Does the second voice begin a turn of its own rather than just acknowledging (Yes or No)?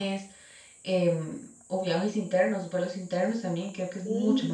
Yes